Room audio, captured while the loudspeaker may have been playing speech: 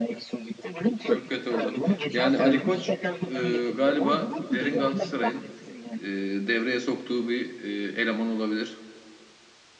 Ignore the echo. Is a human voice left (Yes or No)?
Yes